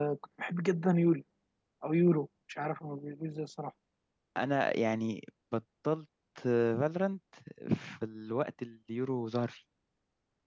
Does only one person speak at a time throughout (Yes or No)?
Yes